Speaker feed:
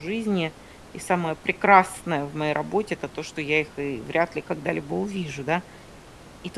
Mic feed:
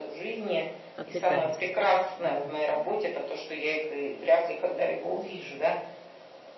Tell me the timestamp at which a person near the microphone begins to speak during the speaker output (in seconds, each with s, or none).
1.0 s